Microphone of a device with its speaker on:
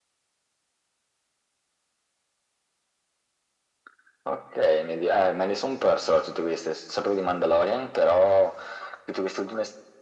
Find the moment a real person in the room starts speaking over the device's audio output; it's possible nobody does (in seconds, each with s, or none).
none